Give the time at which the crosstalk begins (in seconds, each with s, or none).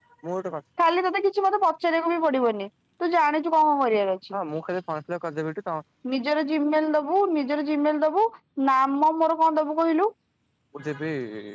none